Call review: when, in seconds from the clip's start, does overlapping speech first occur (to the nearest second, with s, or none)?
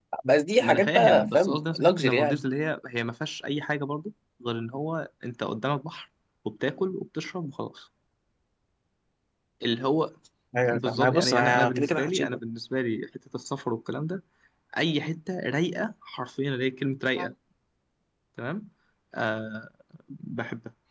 1 s